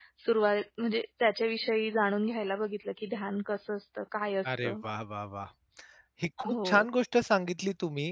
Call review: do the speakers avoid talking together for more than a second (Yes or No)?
Yes